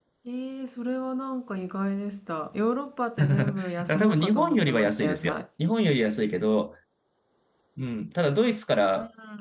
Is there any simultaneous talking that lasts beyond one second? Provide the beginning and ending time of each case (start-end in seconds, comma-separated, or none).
3.2-5.4